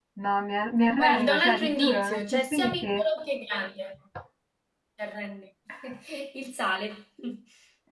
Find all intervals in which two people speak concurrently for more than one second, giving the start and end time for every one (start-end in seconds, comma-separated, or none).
1.0-3.0